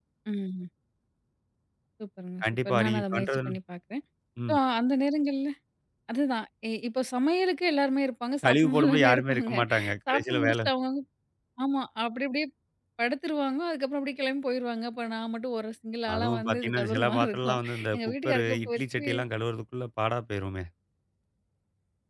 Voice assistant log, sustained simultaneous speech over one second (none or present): present